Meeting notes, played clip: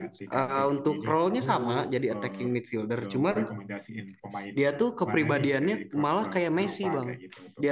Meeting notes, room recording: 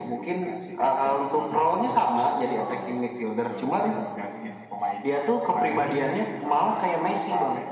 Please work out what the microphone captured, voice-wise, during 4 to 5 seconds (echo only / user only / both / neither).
echo only